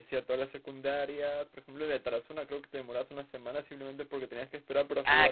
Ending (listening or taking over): taking over